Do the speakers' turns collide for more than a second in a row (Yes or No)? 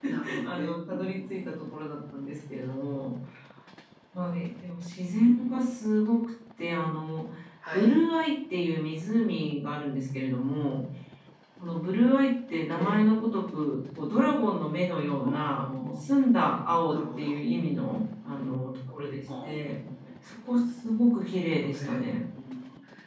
Yes